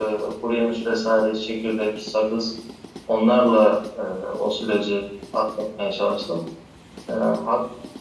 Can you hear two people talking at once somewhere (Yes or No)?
No